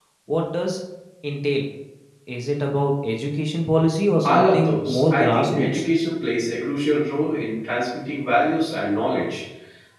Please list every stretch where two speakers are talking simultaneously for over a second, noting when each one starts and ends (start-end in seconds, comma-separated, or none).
4.2-5.8